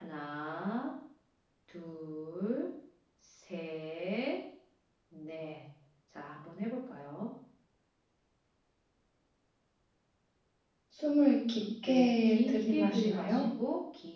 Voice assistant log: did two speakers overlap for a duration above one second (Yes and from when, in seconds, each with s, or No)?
Yes, from 11.8 s